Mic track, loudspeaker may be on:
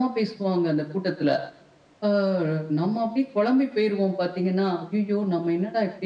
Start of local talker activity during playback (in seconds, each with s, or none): none